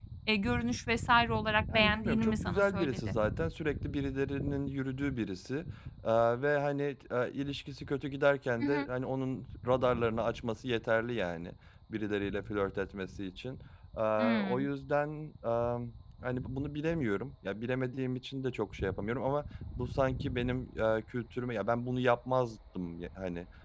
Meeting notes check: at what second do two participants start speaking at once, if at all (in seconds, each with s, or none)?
1.7 s